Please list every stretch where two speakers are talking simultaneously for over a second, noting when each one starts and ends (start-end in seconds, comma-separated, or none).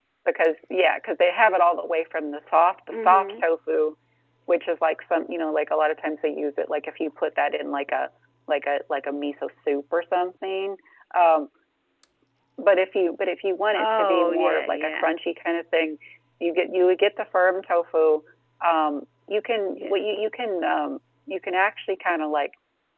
13.7-15.1